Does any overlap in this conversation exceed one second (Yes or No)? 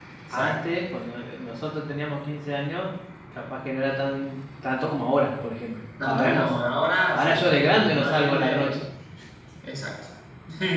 Yes